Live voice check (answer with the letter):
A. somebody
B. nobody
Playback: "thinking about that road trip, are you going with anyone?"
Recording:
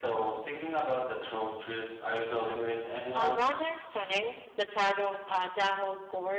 A